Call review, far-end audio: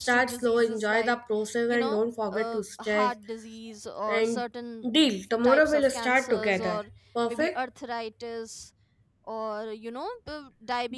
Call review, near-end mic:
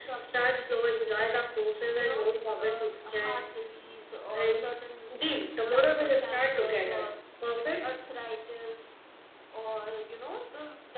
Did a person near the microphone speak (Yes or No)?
No